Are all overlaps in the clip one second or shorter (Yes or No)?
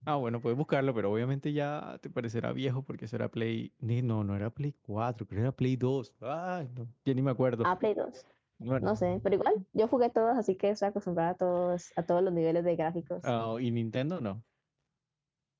Yes